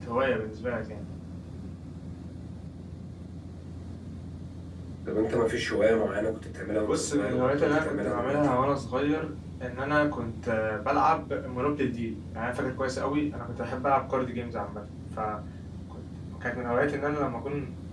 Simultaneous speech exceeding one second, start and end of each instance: 6.9-8.6

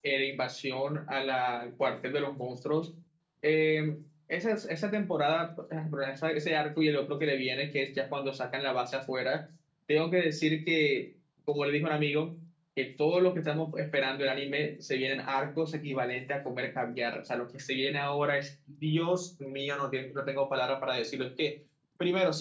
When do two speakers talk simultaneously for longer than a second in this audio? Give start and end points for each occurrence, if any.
none

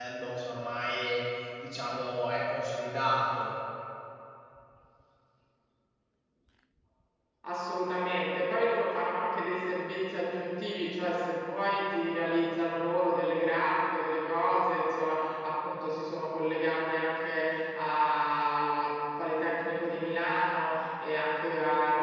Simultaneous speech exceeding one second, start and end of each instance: none

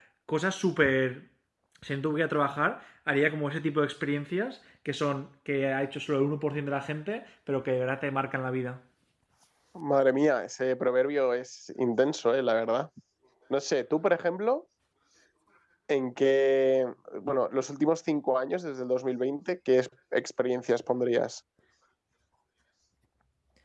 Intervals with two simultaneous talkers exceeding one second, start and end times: none

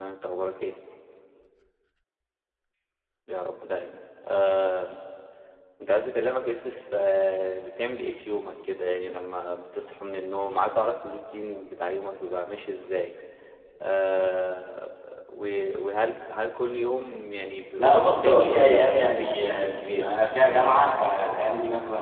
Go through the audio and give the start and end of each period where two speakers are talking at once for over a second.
17.8-20.1

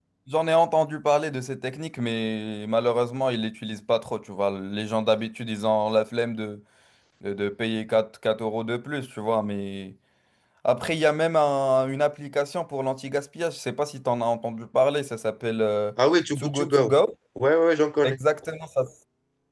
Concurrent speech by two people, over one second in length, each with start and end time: none

